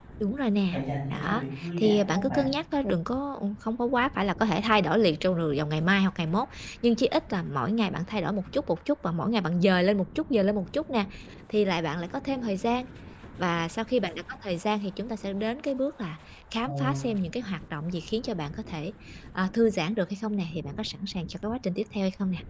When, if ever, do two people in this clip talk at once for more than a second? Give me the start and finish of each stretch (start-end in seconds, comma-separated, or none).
1.1-2.4